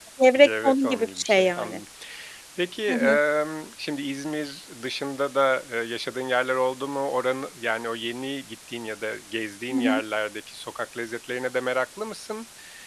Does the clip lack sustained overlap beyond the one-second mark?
No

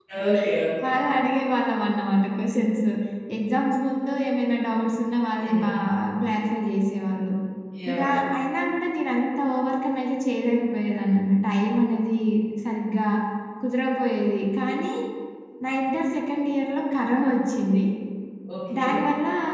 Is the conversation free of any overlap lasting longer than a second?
Yes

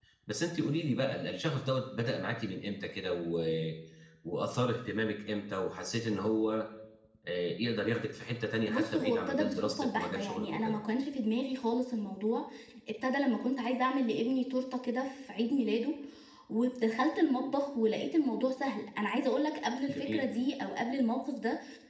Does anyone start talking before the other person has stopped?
Yes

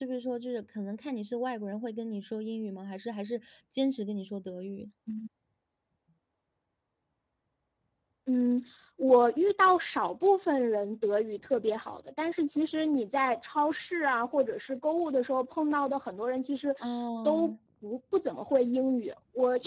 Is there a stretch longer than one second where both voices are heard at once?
No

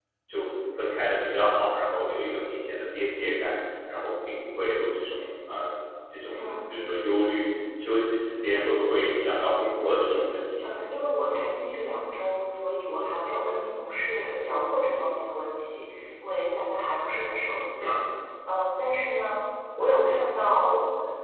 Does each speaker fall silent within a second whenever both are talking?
Yes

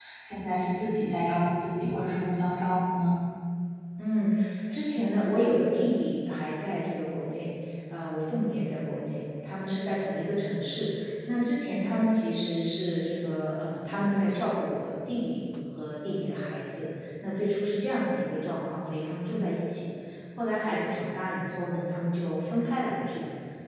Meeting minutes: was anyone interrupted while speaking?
No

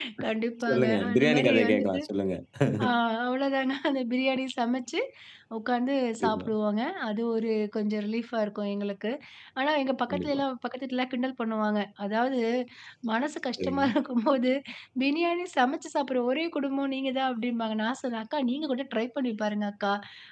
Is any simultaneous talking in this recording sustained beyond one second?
Yes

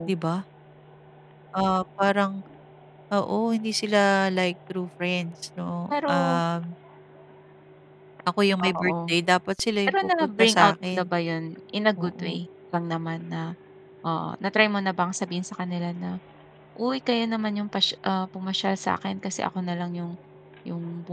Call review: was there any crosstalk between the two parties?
Yes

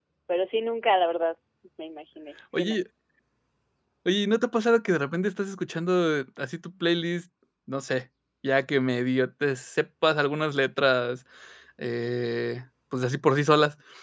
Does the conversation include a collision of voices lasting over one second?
No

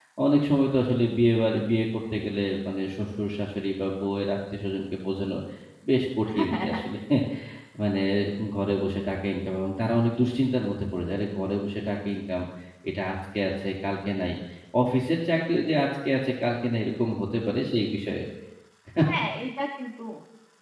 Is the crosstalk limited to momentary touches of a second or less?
Yes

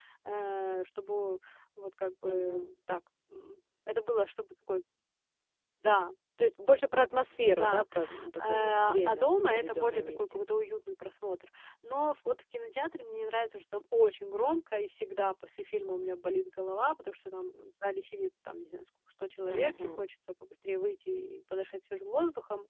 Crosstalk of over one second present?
Yes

